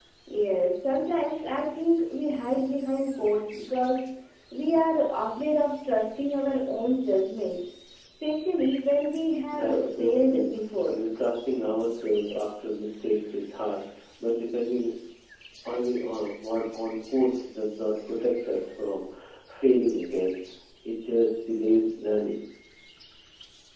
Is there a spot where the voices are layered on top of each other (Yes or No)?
Yes